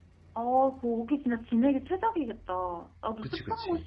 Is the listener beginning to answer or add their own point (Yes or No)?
No